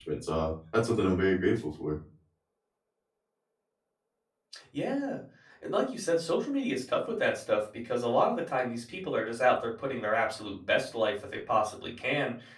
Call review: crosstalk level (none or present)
none